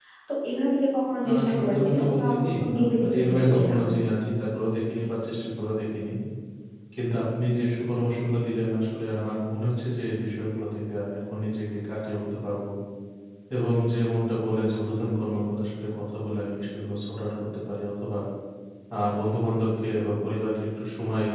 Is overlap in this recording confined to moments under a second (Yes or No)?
No